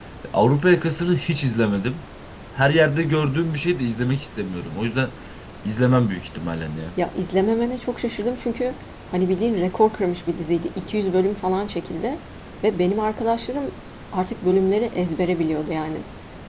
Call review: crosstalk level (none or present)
none